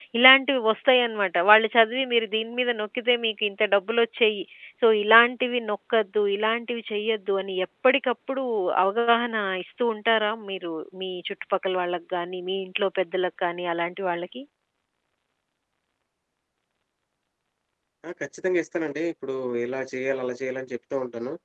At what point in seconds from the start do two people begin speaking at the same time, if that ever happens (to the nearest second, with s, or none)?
none